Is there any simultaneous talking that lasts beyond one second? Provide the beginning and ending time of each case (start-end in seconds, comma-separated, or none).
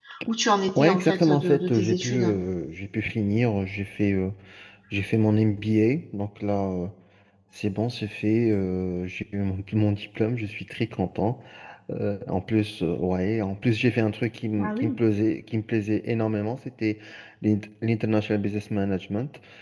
0.8-2.4